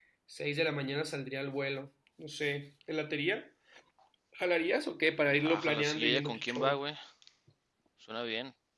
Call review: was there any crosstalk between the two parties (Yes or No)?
Yes